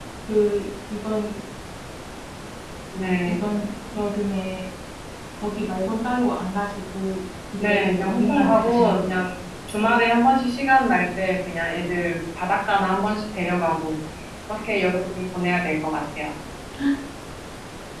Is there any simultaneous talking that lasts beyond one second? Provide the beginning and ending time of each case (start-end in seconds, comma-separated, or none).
7.6-9.2